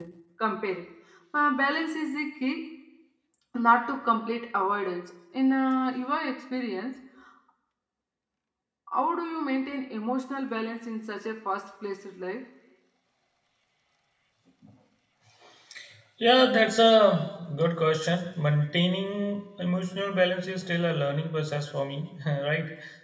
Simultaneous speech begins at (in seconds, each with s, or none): none